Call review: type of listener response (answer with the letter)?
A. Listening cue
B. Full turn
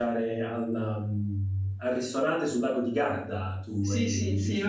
B